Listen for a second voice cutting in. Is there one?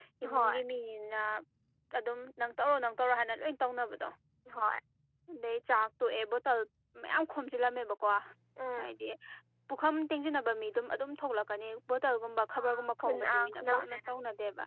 Yes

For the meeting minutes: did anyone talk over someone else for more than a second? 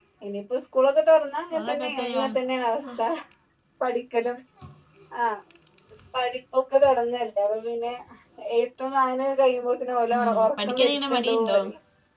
Yes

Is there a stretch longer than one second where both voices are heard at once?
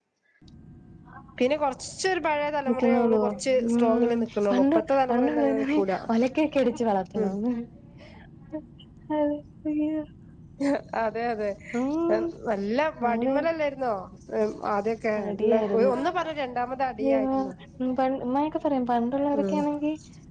Yes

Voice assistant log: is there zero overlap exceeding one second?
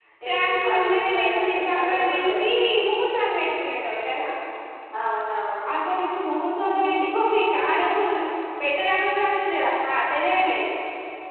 No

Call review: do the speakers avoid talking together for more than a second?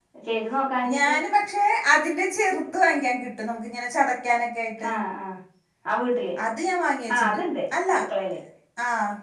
Yes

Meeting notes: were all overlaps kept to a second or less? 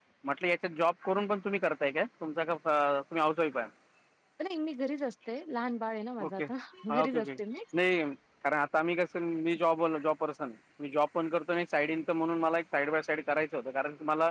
Yes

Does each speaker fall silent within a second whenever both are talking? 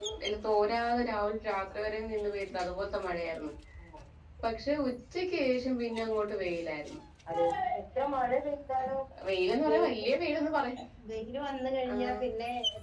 Yes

